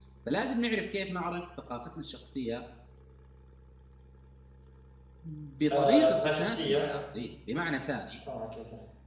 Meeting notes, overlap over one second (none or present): present